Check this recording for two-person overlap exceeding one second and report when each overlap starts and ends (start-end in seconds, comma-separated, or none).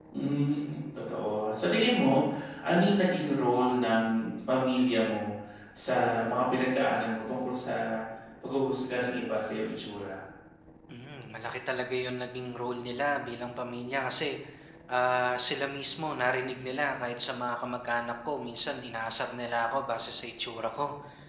none